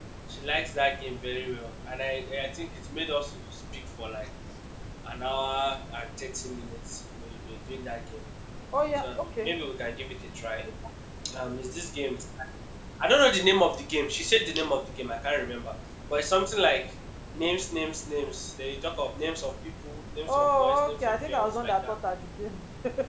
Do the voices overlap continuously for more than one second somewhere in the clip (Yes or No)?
Yes